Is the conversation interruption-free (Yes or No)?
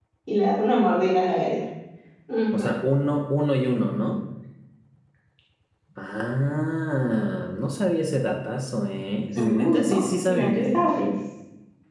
No